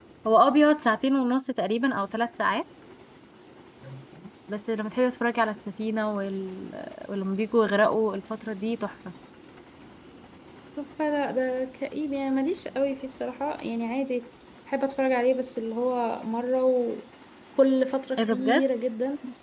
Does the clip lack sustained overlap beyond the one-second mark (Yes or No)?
Yes